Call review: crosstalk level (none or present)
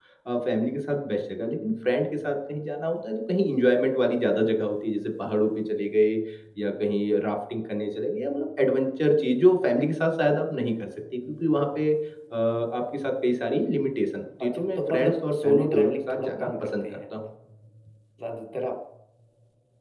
present